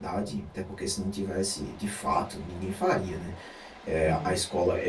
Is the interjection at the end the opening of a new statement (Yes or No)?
No